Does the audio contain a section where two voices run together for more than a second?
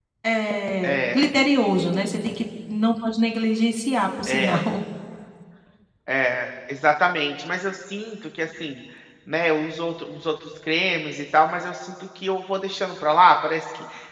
No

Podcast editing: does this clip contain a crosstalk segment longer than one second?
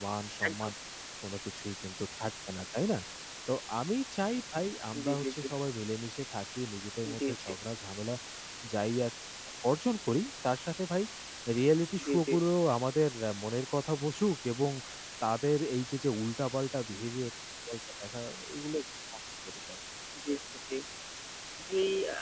No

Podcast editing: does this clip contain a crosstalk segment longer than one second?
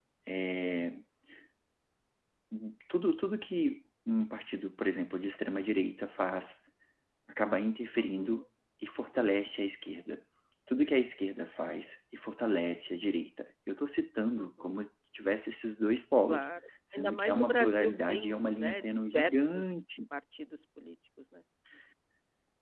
Yes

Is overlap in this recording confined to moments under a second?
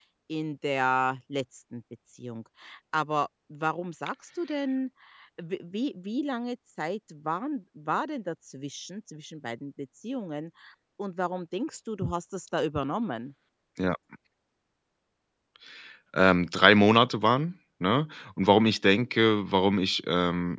Yes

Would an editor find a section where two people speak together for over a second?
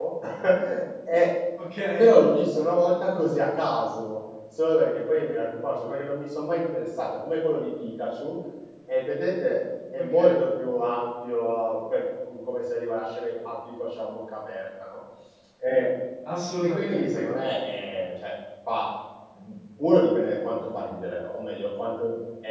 No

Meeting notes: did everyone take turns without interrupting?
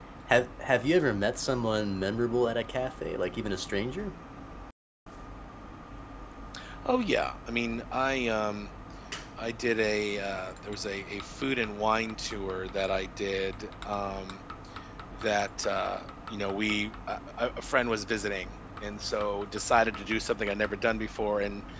Yes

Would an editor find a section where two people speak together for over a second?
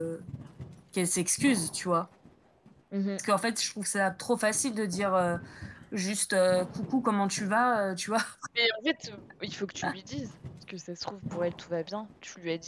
No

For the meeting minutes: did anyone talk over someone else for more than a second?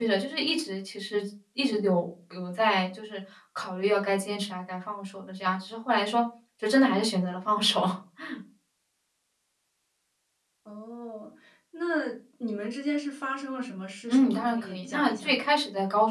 Yes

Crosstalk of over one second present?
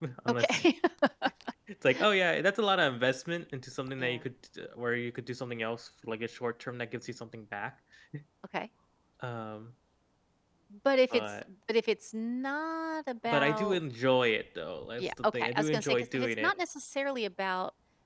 Yes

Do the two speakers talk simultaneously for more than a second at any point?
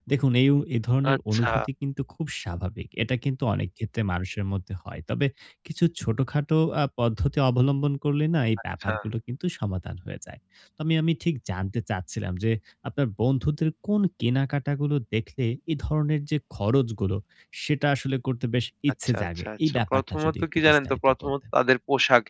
Yes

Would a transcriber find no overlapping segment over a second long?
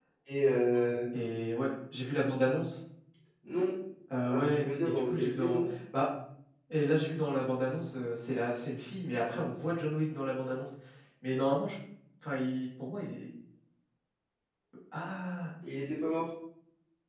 No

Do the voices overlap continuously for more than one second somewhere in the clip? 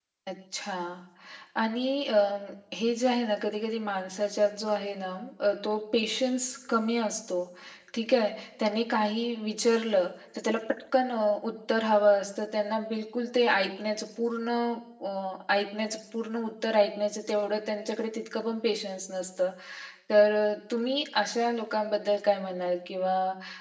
No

